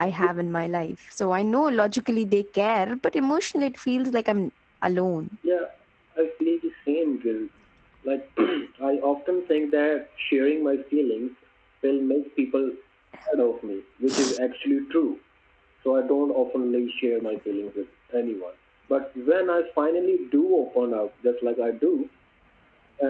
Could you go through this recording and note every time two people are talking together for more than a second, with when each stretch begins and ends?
none

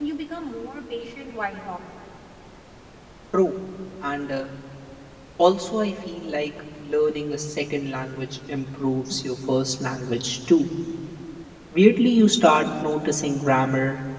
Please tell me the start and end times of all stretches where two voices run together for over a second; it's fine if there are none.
none

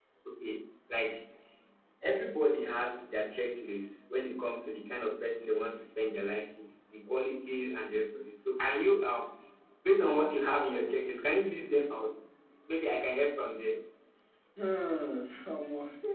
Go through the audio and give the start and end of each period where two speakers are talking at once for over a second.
none

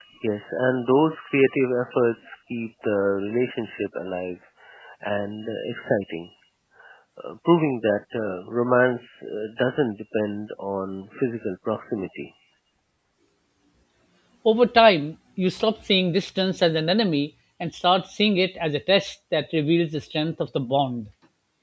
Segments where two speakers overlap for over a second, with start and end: none

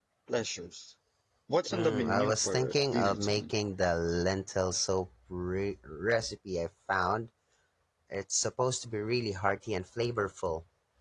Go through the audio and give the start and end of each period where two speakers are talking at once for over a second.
1.7-3.5

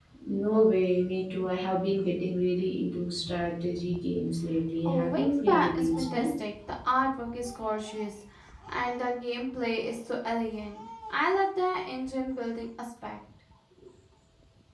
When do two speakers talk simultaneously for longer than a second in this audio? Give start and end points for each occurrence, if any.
4.8-6.3

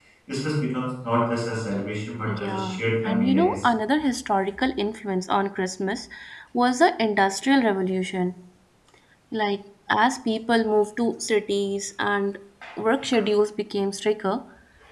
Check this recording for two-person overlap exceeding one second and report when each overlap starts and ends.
2.3-3.6

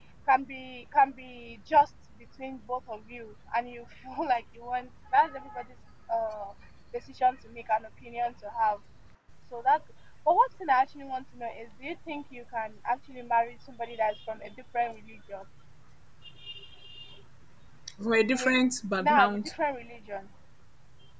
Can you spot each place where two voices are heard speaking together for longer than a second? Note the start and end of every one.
none

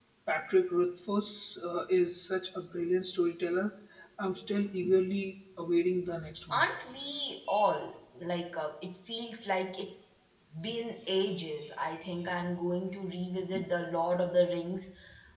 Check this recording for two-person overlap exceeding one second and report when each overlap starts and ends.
none

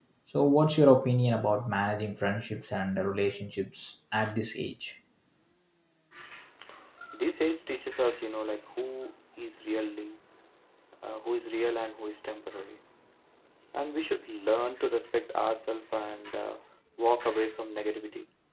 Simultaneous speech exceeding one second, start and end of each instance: none

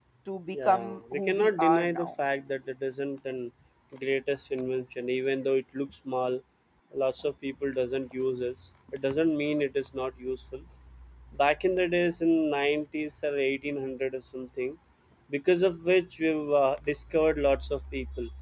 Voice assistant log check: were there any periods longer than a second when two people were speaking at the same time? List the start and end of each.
0.5-2.1

